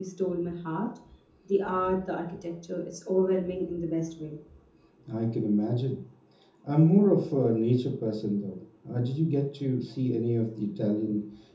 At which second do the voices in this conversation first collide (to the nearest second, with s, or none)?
none